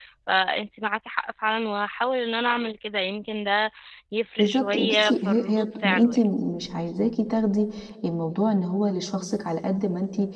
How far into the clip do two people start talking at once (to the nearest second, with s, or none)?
4 s